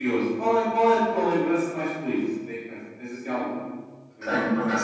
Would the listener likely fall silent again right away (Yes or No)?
No